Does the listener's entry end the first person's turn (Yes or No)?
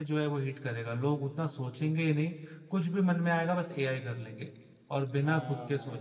Yes